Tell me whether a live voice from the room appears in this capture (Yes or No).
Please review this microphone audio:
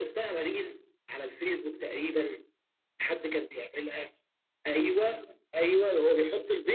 No